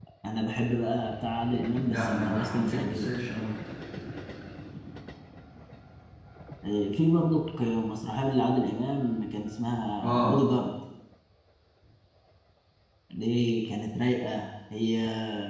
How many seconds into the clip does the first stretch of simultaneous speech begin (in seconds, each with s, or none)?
1.9 s